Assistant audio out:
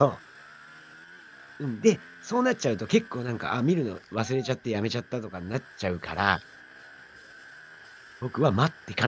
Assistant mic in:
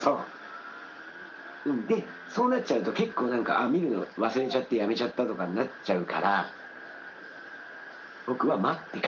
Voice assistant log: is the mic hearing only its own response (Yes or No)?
Yes